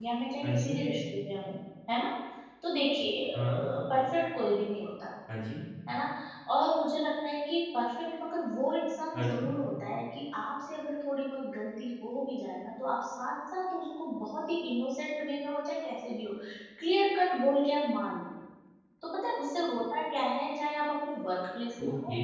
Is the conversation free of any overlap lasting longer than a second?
Yes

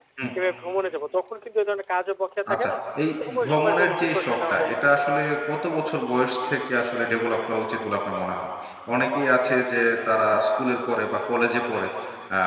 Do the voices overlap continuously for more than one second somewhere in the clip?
Yes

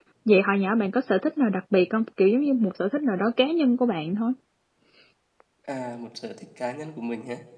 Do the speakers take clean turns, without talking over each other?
Yes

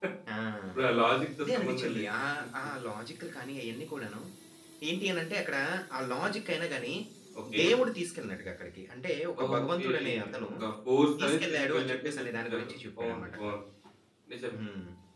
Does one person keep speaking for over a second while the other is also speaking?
Yes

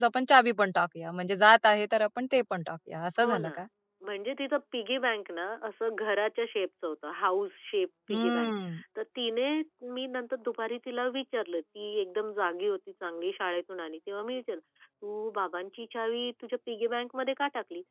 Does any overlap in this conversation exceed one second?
No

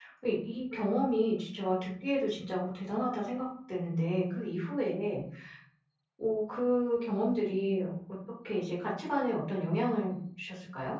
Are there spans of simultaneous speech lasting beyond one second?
No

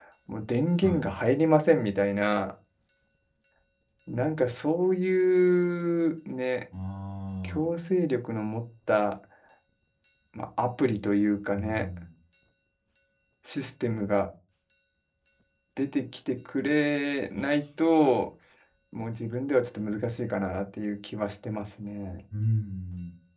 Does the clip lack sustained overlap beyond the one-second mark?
Yes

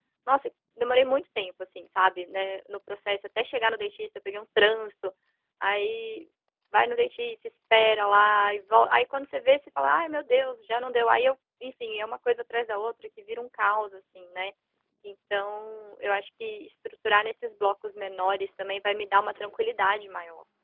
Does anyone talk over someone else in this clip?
No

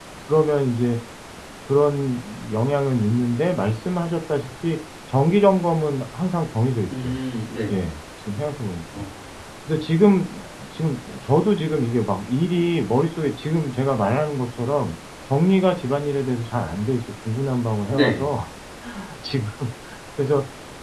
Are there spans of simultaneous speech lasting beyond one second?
No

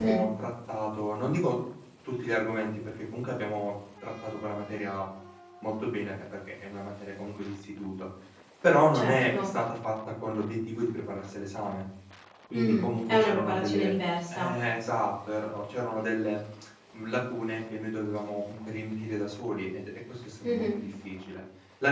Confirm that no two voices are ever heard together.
No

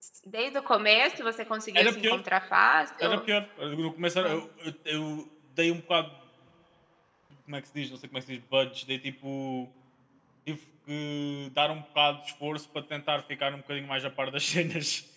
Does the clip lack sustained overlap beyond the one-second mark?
Yes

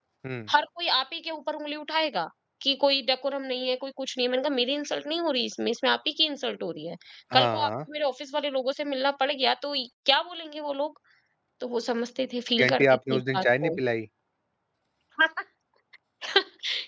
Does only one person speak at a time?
No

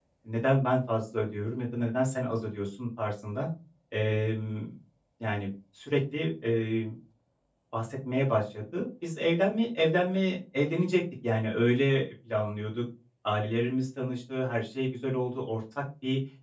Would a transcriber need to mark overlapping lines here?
No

